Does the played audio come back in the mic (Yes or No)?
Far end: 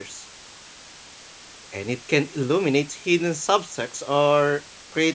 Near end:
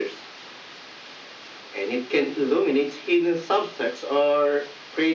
Yes